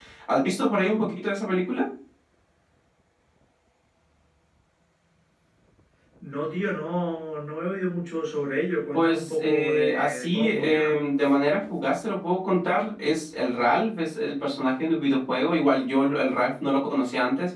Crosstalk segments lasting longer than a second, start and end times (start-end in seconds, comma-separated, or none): 8.9-10.9